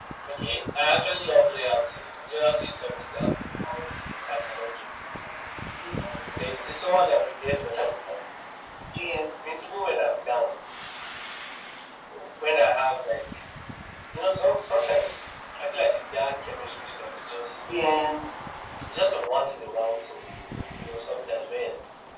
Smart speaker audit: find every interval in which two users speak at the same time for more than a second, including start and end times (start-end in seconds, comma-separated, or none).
none